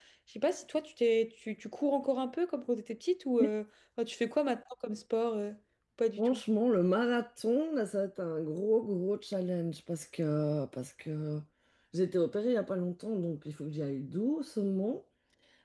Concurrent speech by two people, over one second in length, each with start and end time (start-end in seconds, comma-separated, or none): none